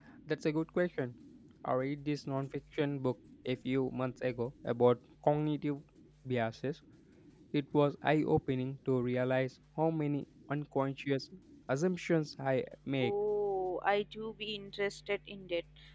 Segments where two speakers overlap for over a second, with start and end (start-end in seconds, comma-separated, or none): none